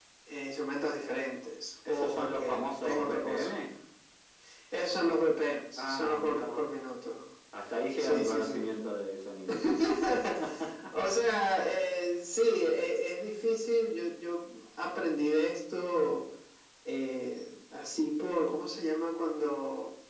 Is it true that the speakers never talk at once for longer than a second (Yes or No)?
No